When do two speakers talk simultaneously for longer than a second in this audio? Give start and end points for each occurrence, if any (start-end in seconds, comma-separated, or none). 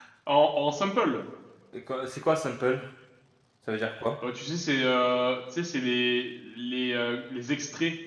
none